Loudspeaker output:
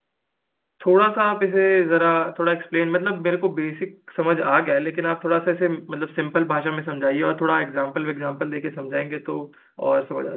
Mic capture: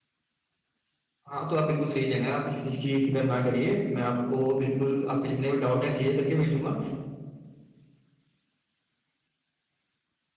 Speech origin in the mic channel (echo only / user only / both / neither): user only